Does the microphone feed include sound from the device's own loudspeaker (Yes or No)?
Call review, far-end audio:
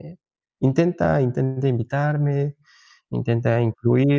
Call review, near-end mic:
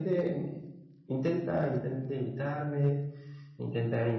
Yes